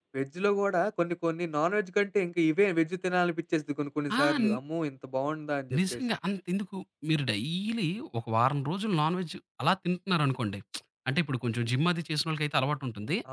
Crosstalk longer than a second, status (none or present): none